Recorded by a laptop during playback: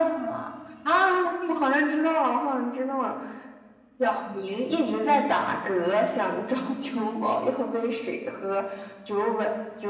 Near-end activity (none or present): none